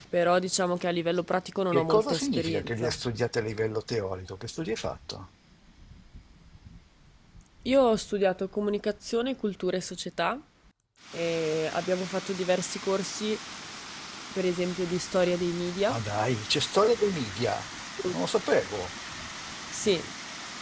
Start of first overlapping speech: 1.7 s

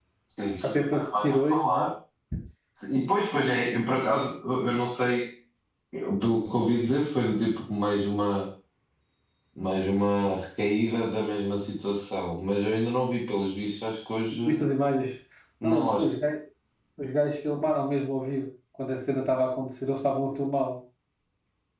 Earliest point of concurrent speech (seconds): 0.6 s

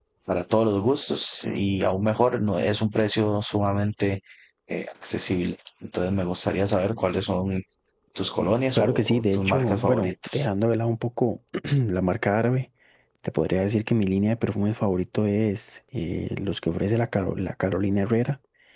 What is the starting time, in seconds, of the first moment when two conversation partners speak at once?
8.8 s

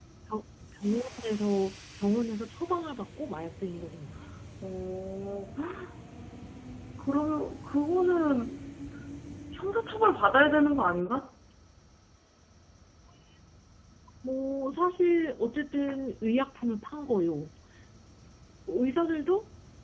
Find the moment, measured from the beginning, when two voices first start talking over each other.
none

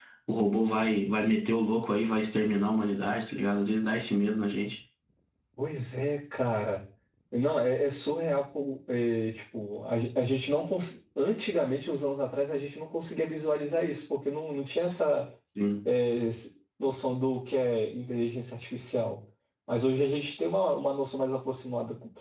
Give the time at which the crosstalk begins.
none

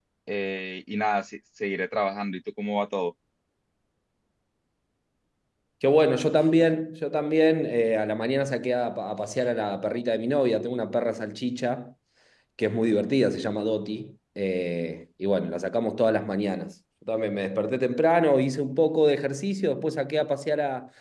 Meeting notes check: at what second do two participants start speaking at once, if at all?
none

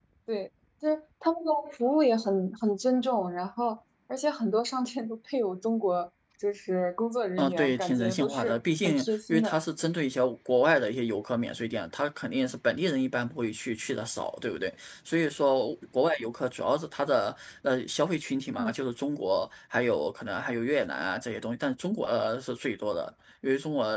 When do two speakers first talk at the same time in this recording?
7.4 s

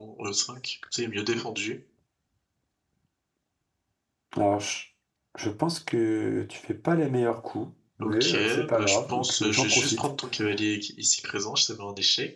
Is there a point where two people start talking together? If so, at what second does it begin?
8.0 s

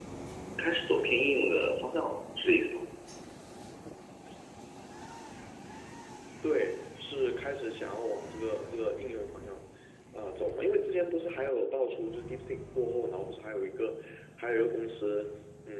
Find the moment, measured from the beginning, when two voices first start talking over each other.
none

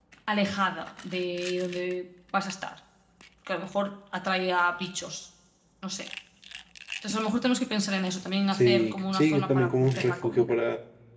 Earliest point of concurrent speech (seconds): 8.5 s

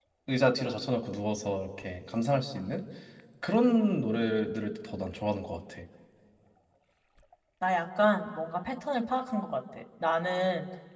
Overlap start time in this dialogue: none

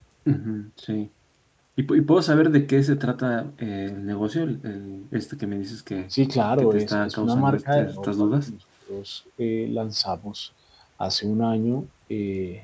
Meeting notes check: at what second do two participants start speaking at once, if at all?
6.6 s

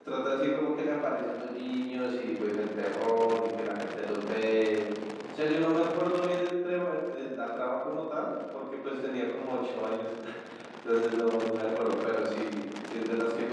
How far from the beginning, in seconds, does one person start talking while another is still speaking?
none

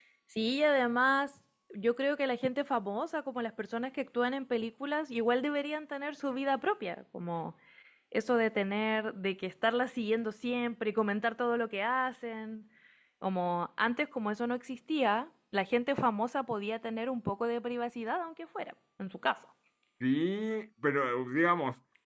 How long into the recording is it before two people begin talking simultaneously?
none

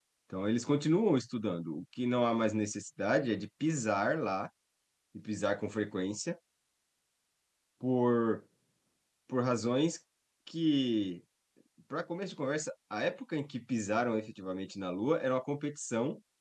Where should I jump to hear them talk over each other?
none

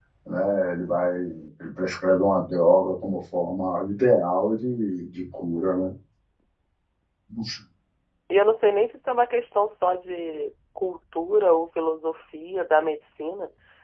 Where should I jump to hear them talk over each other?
none

